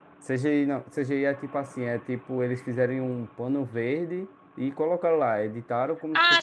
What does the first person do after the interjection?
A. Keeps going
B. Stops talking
B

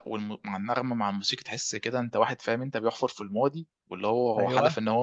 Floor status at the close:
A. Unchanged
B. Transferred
A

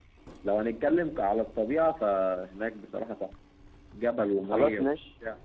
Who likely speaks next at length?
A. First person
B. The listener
A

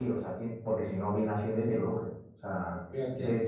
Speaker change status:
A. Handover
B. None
B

